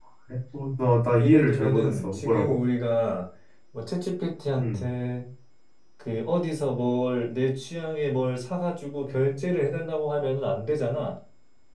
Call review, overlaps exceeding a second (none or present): present